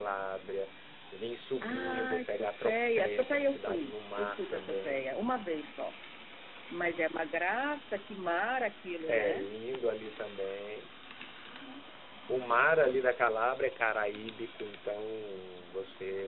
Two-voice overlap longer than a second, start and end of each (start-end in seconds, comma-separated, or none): 1.6-5.1